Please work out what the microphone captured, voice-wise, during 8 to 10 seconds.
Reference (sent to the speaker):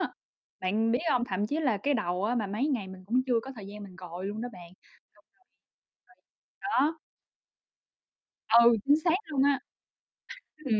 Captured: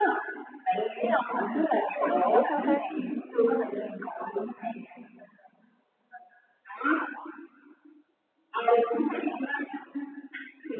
echo only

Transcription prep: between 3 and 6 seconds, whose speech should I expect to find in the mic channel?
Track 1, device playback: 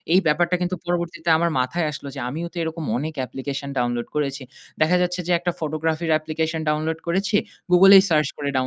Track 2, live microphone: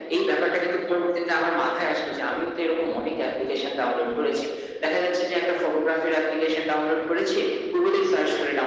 echo only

